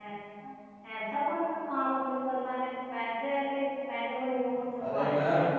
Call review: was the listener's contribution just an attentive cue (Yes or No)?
No